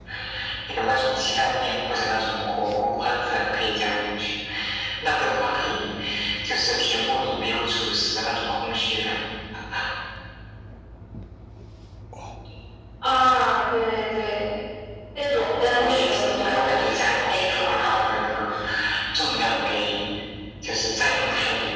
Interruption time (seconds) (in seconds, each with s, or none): 15.7 s